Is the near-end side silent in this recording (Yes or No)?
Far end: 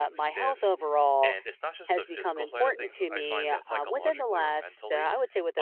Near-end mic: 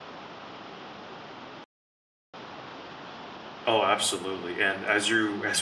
No